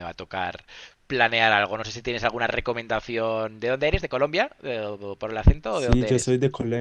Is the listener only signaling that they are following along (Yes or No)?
No